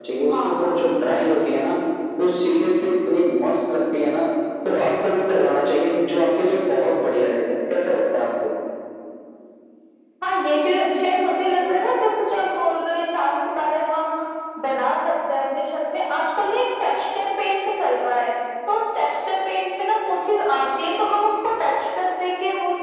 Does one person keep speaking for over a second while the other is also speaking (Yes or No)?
No